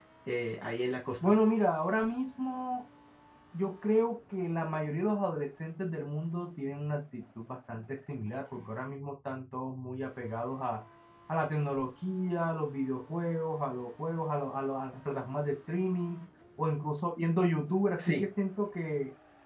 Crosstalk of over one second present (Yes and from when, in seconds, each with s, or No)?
No